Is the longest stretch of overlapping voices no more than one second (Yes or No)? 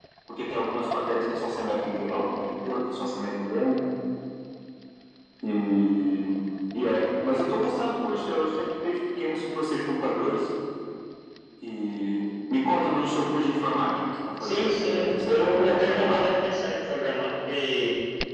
No